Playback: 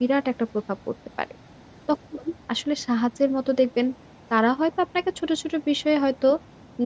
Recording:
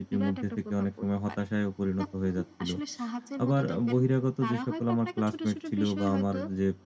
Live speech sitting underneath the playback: No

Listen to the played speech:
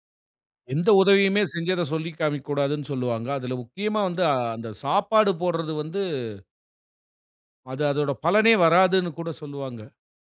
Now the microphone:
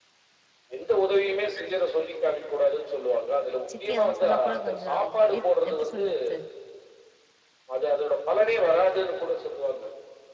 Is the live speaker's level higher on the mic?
No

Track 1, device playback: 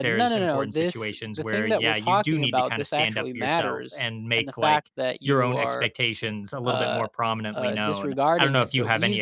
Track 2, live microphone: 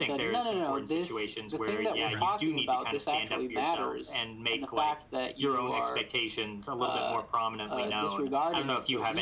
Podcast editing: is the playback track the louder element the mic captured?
Yes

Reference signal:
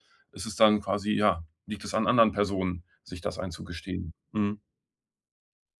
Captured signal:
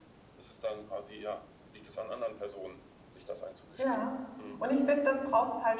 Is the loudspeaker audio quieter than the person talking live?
Yes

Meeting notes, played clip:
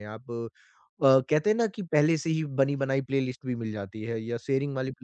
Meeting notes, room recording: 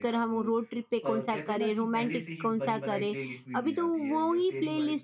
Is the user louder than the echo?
Yes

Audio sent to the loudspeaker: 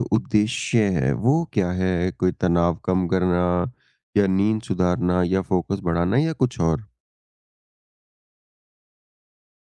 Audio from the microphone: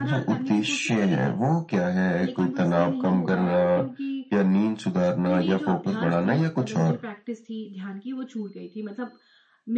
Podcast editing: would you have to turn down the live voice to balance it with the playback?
No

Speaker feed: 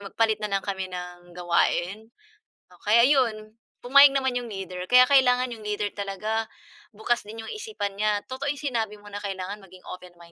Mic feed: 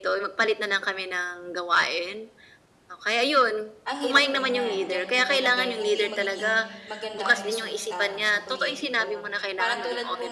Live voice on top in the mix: No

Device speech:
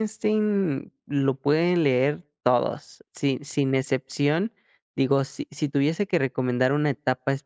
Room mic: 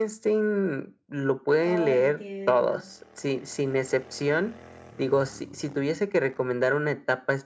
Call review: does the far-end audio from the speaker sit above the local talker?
Yes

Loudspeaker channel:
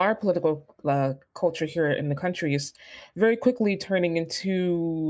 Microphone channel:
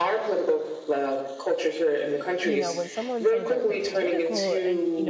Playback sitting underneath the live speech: No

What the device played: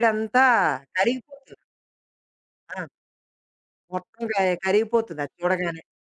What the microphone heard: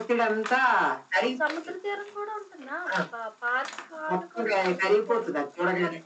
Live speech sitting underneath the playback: Yes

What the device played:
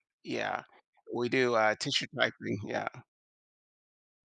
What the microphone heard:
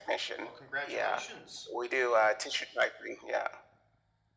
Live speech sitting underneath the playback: Yes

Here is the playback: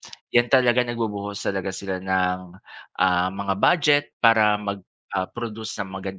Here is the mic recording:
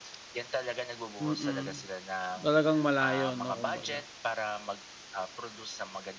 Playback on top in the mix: No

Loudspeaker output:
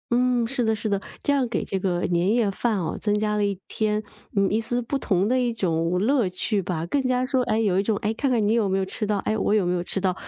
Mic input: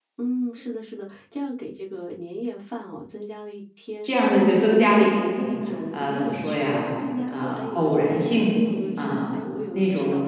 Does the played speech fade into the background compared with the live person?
Yes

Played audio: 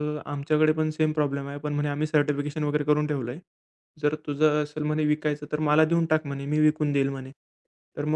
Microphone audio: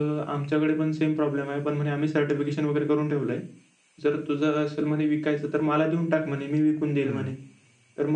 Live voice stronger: No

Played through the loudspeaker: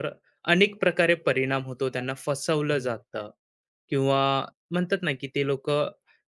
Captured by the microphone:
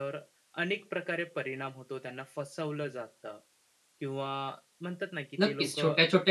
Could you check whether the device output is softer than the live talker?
Yes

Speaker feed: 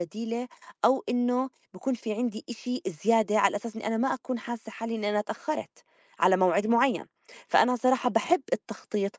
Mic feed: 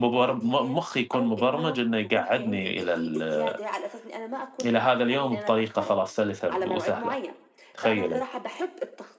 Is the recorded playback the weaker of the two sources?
Yes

